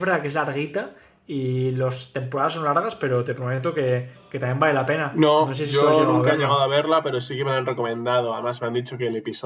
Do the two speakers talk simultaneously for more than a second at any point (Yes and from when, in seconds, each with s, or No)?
Yes, from 5.1 s